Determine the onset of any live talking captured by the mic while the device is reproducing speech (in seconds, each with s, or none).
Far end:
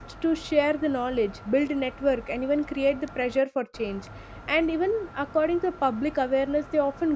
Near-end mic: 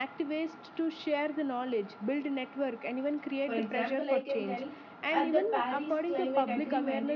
3.4 s